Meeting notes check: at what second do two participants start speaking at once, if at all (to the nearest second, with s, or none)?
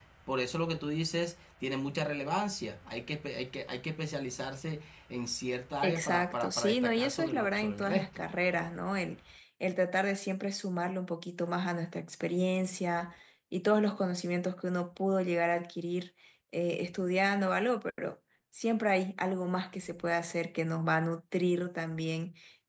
6 s